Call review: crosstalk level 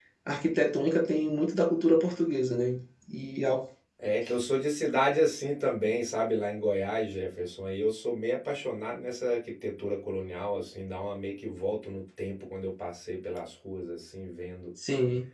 none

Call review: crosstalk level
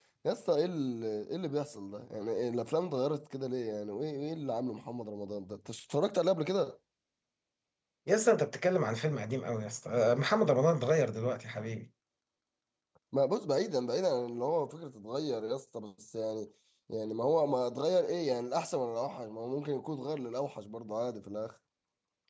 none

